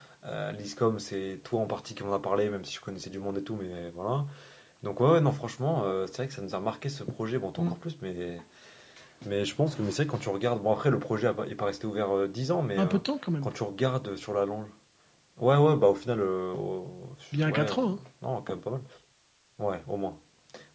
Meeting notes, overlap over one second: none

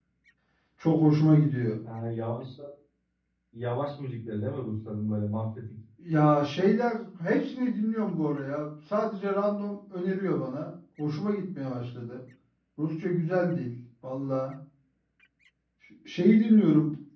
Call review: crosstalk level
none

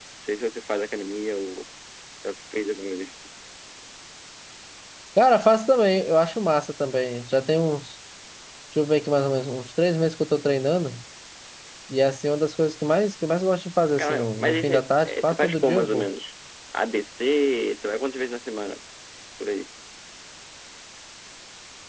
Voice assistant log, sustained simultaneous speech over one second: present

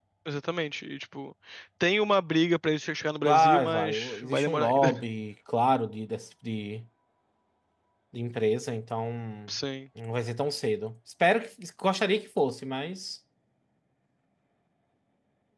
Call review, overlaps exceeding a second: present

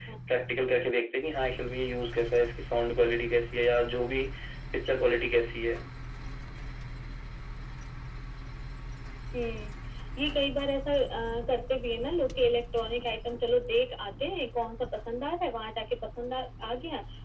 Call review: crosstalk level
none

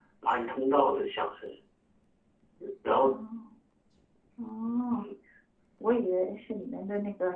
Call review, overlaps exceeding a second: none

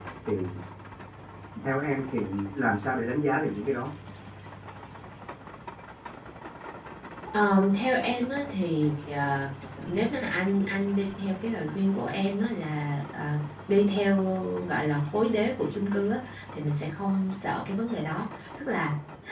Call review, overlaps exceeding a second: none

